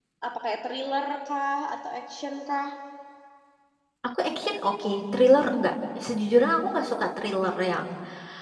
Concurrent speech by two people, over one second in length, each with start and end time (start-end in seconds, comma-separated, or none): none